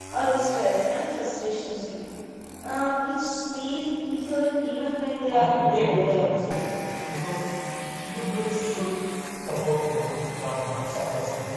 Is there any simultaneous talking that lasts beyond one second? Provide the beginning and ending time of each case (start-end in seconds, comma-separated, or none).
5.3-6.5